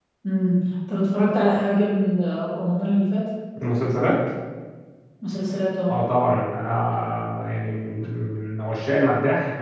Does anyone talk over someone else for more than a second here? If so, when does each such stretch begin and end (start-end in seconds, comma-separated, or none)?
none